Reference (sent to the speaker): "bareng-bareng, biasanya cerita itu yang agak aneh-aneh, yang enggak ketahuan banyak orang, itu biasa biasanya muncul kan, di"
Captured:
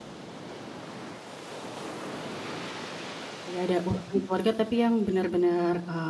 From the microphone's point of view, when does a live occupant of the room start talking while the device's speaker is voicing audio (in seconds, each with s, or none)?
3.5 s